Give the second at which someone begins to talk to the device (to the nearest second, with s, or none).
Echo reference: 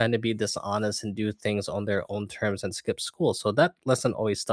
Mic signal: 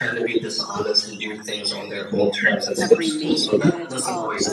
3 s